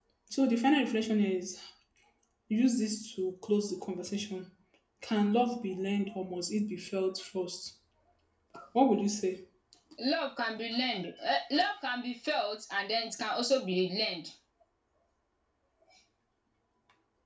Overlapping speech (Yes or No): No